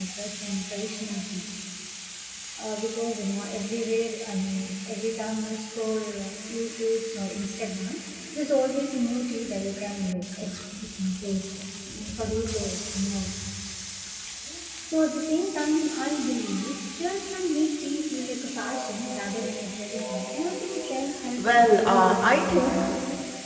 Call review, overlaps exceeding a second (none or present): present